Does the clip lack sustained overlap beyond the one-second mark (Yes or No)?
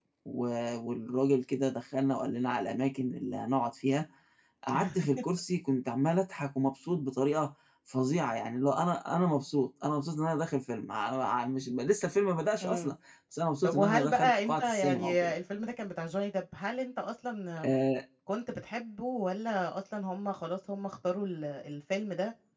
No